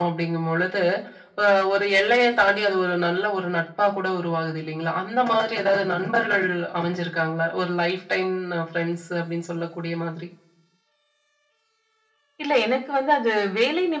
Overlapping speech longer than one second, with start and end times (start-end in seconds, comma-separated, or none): none